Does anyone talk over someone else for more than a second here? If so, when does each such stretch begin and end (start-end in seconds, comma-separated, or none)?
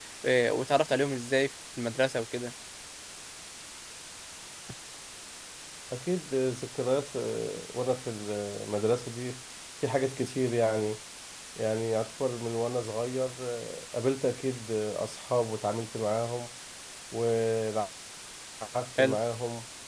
none